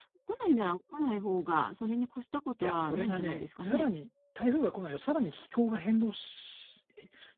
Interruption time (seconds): 2.6 s

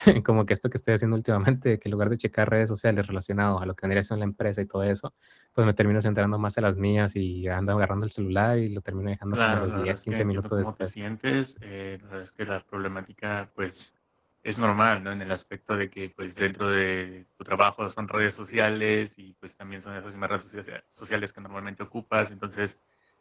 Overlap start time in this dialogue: 9.3 s

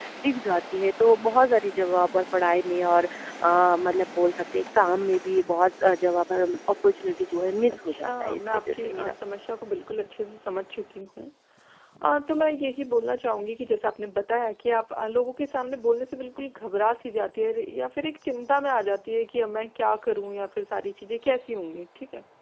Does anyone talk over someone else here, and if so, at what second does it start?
7.7 s

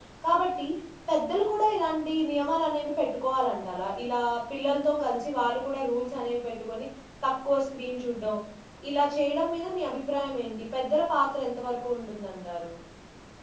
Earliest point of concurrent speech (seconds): none

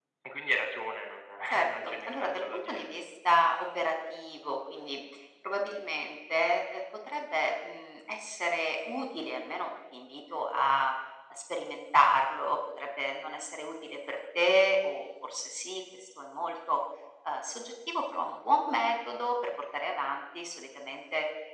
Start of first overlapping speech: 1.6 s

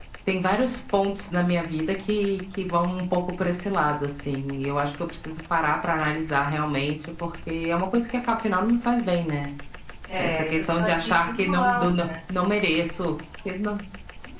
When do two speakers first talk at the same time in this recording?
10.2 s

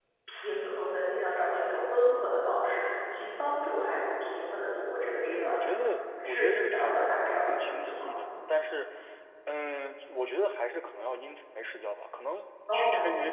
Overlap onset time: 5.2 s

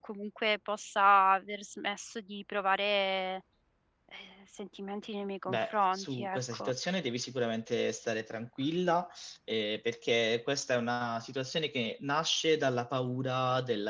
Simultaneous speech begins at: 5.5 s

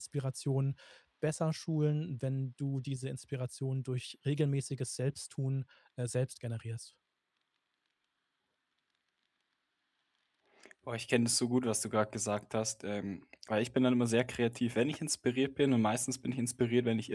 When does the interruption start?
none

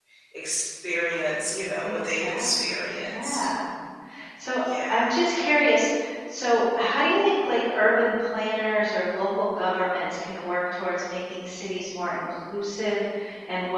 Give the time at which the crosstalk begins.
1.8 s

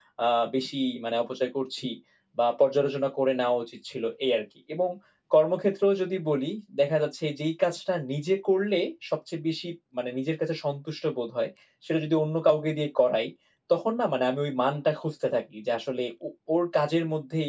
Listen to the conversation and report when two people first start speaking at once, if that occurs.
none

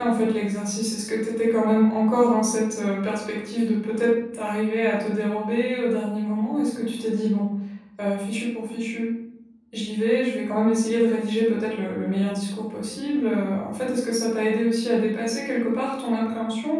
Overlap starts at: none

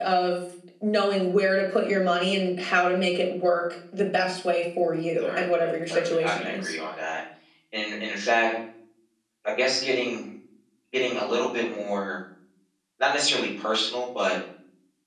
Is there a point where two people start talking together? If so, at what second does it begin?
5.2 s

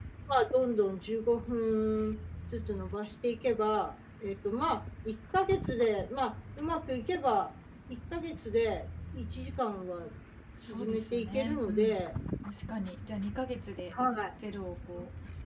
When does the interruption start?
10.6 s

